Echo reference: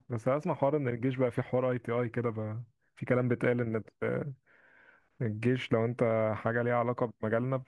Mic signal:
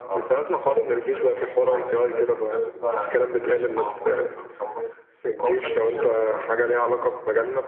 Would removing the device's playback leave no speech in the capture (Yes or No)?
No